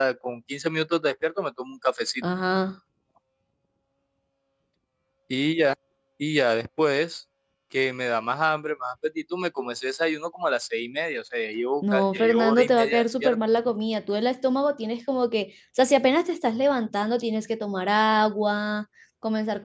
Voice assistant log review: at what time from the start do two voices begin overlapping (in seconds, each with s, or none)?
11.8 s